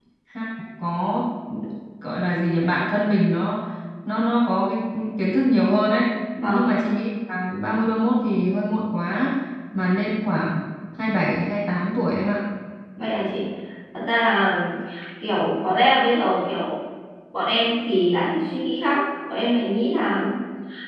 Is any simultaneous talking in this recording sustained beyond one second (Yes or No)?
No